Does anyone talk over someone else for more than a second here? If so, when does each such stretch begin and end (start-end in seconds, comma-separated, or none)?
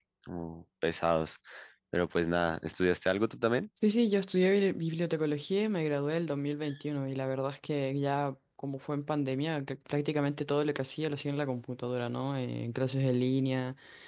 none